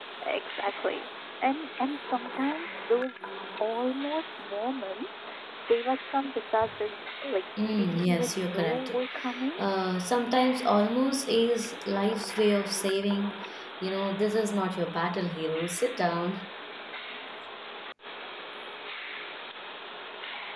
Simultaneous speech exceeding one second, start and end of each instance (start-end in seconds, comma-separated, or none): 7.7-8.9